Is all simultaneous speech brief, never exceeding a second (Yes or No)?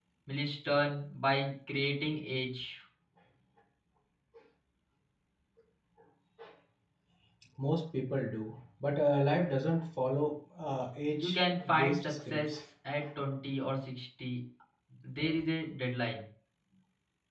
No